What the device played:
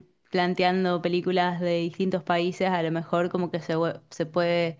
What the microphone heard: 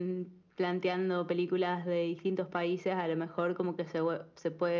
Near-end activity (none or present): none